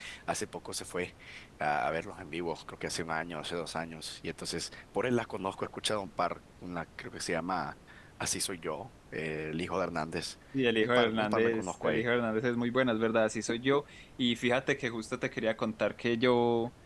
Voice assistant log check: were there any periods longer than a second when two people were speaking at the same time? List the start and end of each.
10.8-12.0

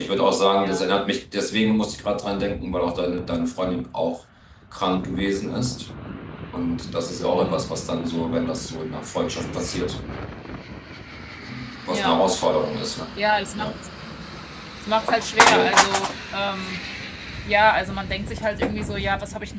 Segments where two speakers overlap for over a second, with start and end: none

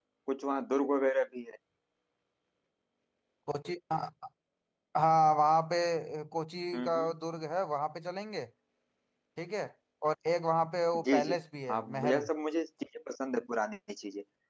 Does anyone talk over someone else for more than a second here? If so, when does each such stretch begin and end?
none

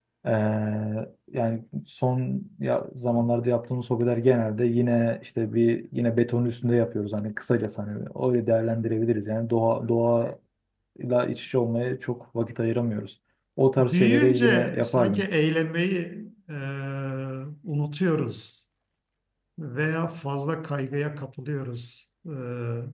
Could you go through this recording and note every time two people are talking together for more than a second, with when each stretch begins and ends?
13.8-15.2

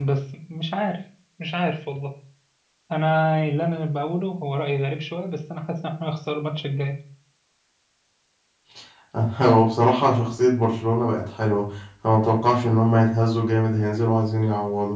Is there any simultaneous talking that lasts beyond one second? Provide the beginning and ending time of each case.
none

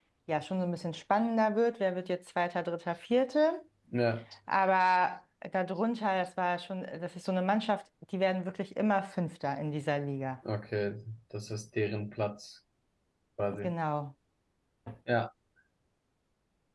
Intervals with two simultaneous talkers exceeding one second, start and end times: none

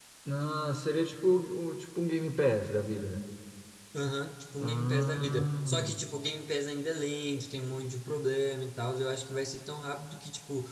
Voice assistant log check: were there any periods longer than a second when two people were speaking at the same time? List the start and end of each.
4.6-6.0

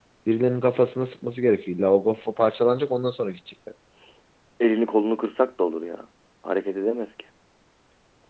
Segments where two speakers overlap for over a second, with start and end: none

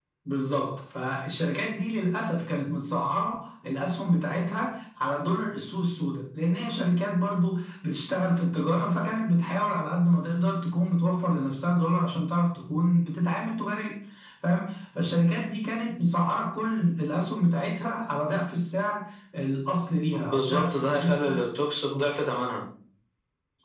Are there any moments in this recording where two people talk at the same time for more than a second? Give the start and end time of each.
20.1-21.4

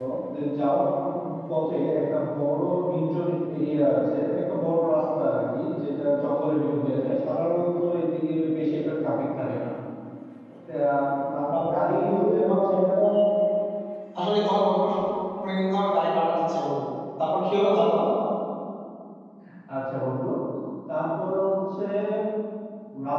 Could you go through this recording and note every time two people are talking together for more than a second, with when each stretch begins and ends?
11.5-12.9

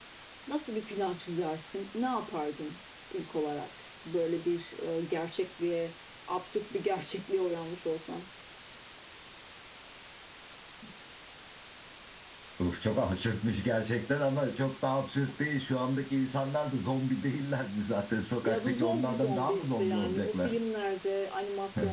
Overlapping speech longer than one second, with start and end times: 18.4-20.6

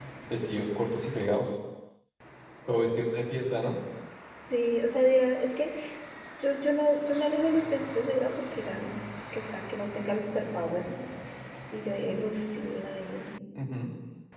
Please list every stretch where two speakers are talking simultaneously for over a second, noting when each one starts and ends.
none

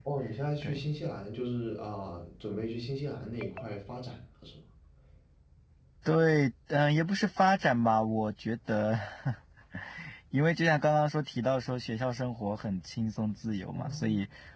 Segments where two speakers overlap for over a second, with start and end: none

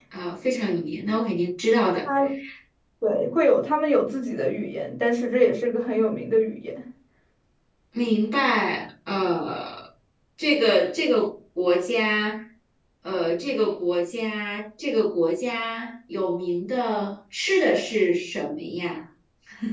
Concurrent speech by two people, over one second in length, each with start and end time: none

